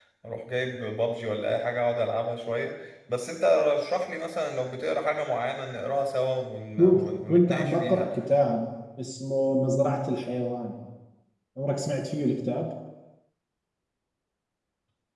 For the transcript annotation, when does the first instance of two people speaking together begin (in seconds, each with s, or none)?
6.8 s